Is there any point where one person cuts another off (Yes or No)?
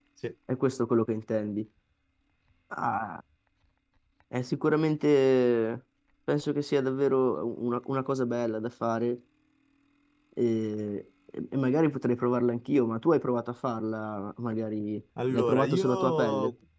Yes